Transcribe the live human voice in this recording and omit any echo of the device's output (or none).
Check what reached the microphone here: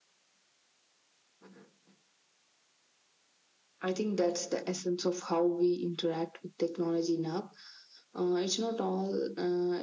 none